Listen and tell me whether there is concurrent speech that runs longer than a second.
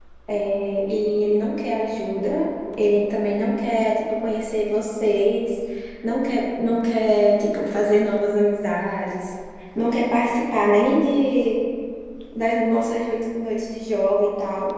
No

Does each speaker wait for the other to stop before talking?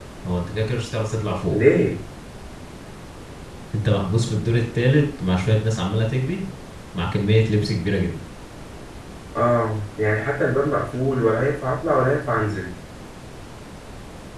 Yes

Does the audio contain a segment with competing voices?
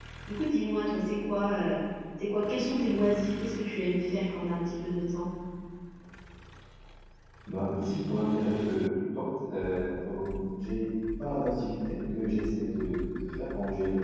No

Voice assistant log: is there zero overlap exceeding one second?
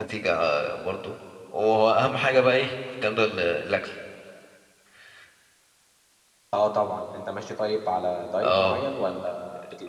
Yes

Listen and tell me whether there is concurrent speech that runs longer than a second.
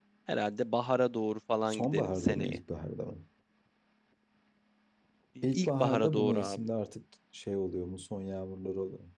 Yes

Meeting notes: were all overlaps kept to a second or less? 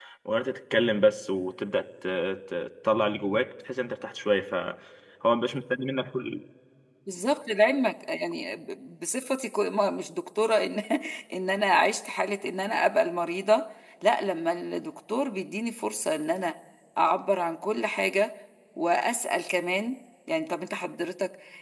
Yes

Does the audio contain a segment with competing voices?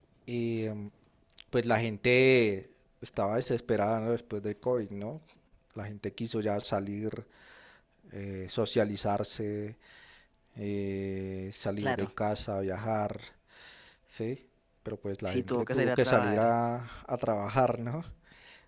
Yes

